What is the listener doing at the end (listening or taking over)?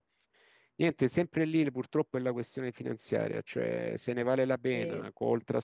listening